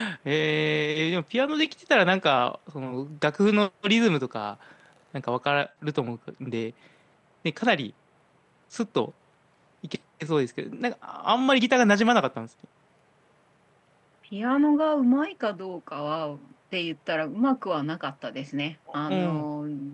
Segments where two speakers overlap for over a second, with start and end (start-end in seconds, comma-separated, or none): none